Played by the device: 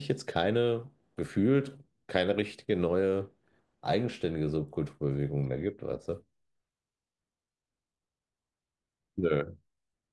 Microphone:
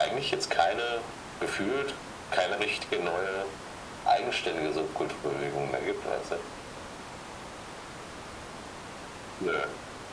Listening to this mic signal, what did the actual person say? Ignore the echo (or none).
none